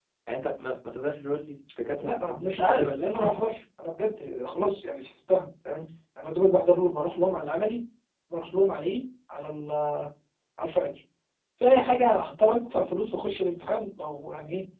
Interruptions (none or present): present